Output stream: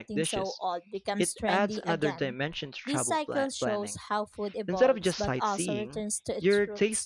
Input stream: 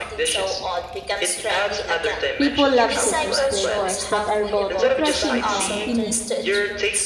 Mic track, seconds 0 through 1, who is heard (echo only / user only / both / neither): echo only